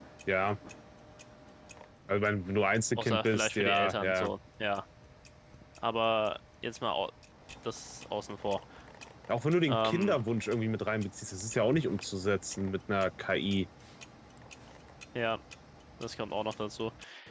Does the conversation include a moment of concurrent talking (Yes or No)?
Yes